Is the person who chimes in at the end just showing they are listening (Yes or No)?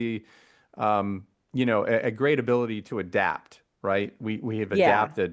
Yes